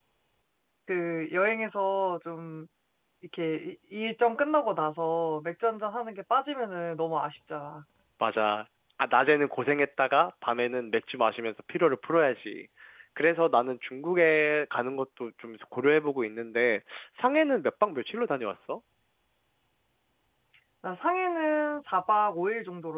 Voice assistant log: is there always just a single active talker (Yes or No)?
Yes